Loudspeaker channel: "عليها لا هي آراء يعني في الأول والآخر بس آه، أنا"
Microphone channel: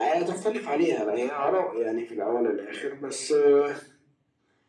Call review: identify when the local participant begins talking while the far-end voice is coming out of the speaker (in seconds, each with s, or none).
none